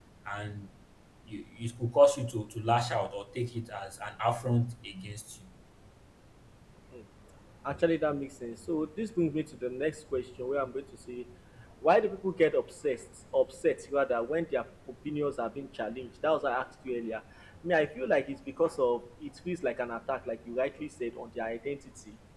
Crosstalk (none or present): none